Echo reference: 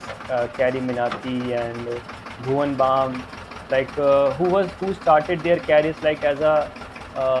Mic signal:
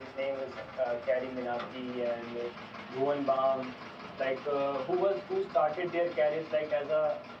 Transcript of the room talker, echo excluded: none

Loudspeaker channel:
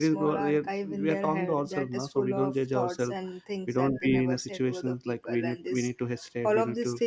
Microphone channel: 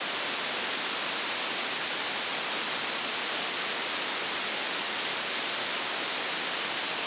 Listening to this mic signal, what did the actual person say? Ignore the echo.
none

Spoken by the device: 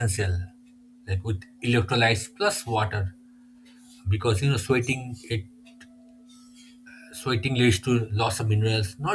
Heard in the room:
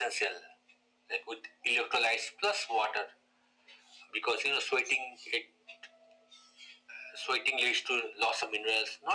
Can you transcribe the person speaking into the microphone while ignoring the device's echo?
none

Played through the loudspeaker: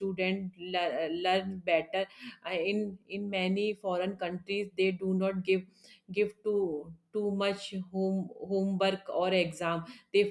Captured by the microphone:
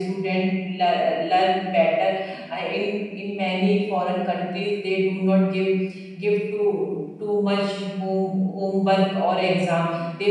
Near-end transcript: none

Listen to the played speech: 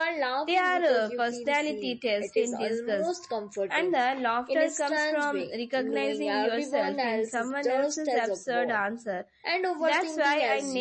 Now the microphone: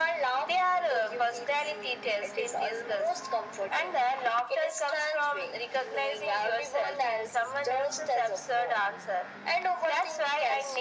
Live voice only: none

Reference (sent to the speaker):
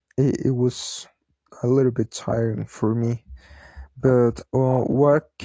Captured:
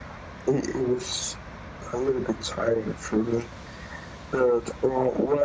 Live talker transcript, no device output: none

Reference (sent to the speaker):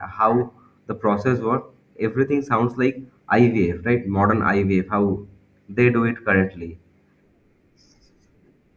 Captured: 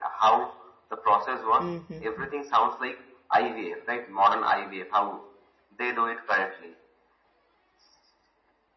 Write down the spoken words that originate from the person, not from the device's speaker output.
Mm-hmm.

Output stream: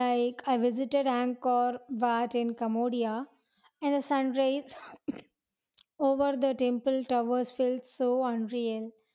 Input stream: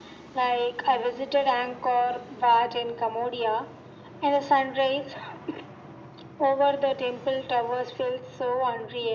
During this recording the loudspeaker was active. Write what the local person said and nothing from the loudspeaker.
none

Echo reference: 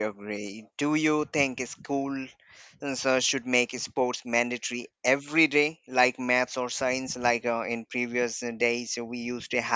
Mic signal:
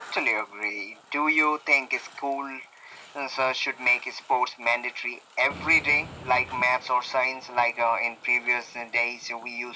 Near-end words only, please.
none

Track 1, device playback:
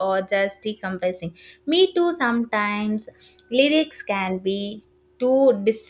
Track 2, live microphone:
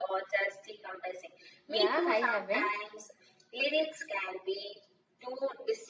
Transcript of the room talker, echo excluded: Yeah, I haven't.

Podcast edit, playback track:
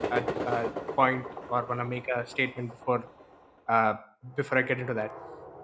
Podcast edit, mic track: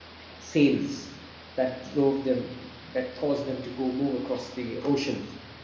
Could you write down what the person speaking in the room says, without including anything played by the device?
uh, sails that drove them, that caused them to go move across the ocean

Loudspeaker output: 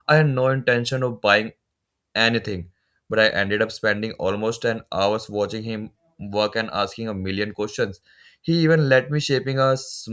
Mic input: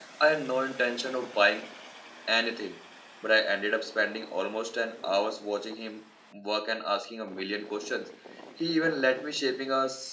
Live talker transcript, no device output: none

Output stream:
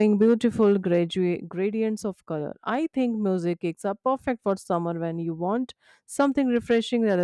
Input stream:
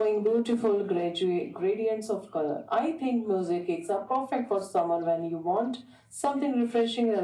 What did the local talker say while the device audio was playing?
none

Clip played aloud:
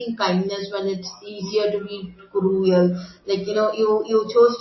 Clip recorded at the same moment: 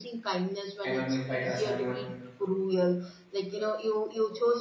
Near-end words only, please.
MMA fighters or even

